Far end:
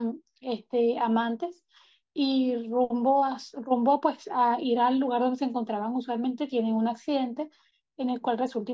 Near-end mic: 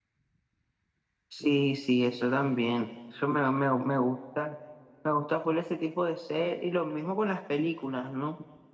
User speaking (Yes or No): Yes